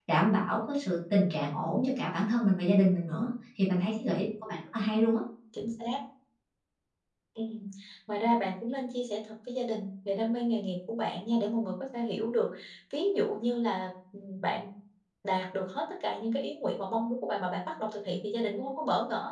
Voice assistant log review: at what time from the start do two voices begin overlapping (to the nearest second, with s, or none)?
none